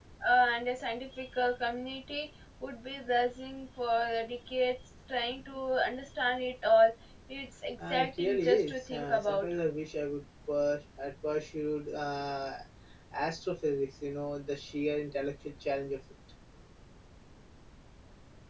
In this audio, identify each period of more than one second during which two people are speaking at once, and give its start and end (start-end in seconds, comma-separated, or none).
7.9-9.5